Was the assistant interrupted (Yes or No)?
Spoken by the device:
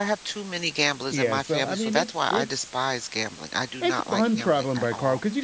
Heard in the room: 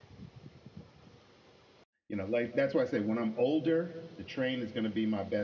Yes